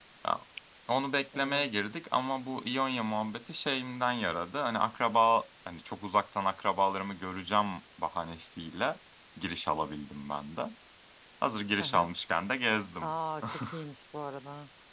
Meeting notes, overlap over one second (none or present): none